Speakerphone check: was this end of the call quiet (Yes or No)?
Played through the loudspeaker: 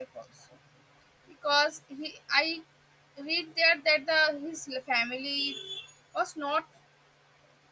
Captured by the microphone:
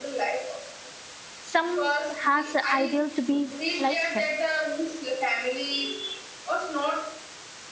No